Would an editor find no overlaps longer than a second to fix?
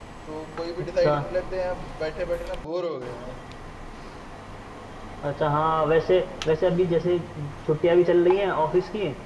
Yes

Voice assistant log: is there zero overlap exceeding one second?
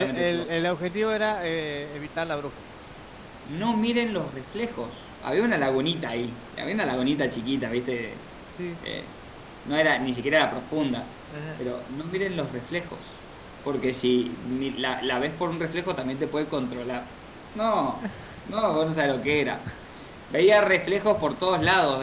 Yes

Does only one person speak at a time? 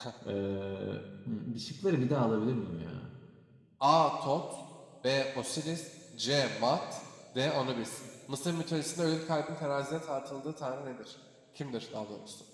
Yes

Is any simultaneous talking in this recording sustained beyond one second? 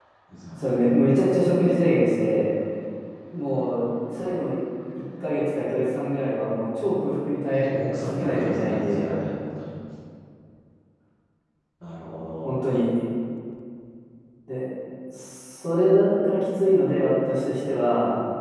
Yes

